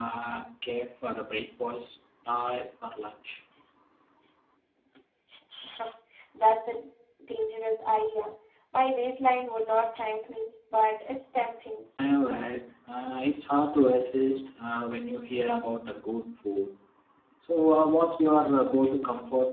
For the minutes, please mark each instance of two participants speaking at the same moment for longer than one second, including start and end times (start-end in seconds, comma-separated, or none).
none